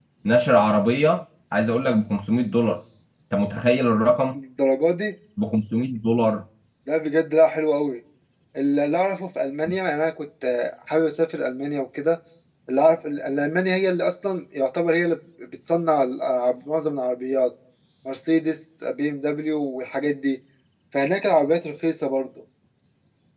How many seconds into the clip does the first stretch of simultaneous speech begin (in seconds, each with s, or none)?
none